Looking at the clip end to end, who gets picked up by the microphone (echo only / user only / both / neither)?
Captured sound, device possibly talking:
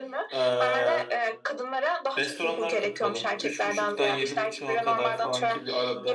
both